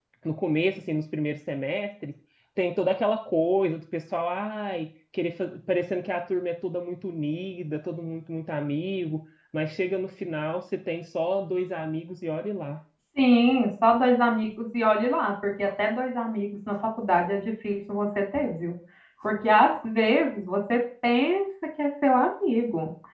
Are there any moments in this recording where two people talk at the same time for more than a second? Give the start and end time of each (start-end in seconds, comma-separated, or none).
none